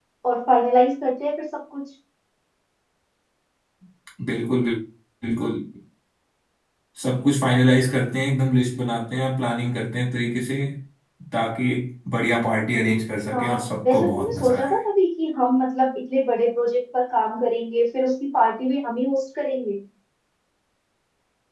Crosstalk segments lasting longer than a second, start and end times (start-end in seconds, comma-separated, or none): 13.3-14.7